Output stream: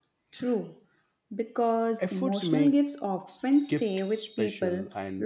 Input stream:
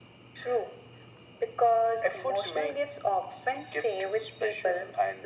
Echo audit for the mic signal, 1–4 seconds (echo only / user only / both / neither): echo only